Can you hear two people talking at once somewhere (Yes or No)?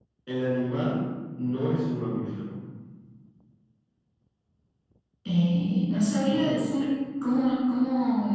No